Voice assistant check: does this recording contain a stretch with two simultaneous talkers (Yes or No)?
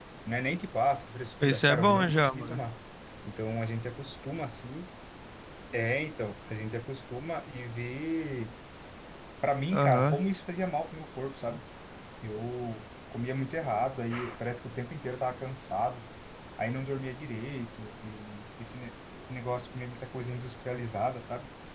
Yes